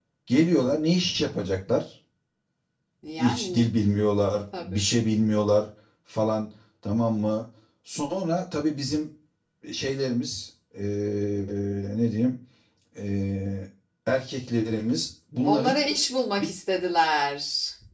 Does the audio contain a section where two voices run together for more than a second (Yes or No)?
No